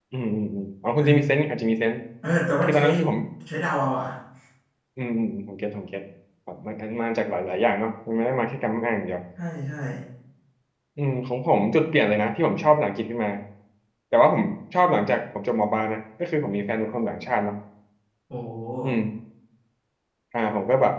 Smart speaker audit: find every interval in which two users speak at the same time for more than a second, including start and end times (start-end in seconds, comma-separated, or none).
none